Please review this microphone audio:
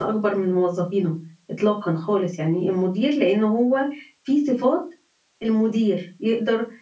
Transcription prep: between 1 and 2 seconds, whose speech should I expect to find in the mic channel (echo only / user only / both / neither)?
user only